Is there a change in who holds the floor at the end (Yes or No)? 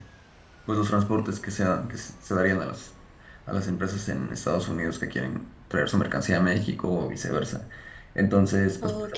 No